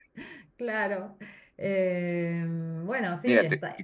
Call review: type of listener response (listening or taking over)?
taking over